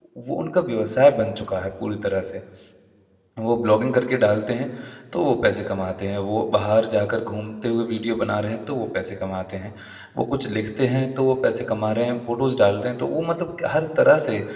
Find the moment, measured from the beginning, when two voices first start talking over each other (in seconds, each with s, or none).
none